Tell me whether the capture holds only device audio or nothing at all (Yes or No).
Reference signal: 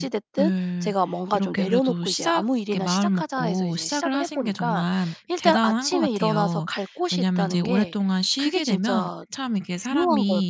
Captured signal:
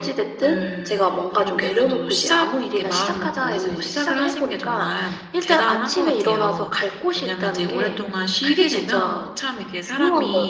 Yes